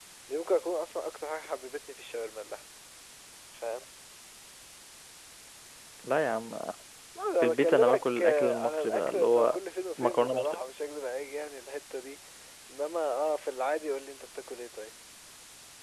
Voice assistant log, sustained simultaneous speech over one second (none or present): present